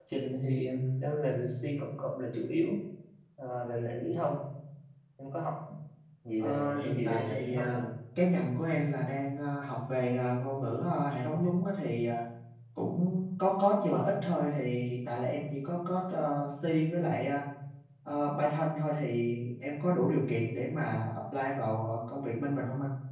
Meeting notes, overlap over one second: present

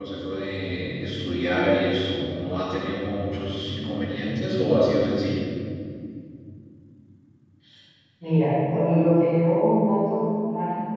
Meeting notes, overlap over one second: none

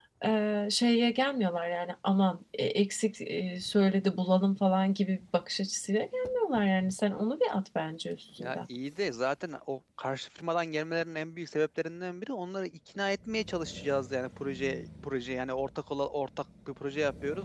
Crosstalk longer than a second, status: none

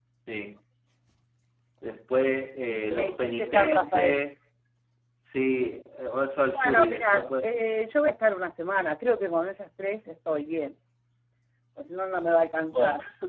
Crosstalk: present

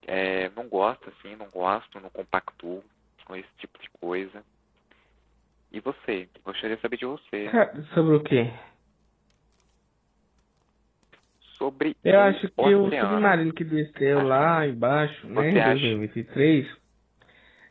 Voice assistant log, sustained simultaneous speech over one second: present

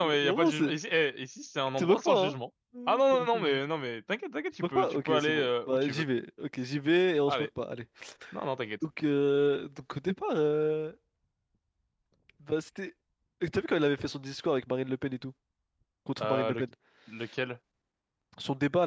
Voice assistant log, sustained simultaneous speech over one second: present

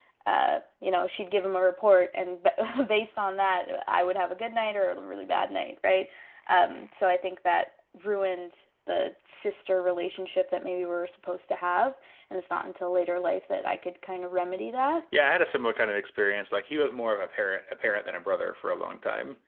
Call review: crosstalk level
none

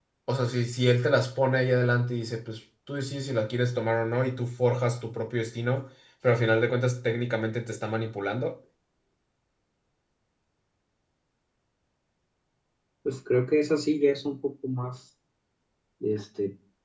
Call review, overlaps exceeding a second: none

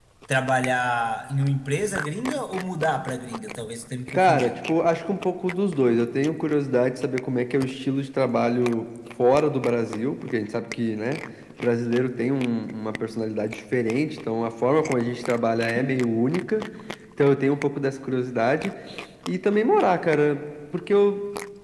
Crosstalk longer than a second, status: none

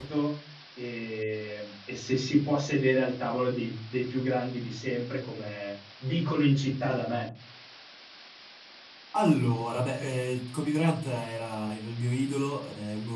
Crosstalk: none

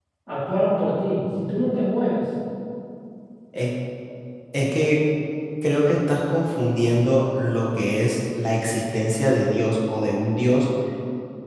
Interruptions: none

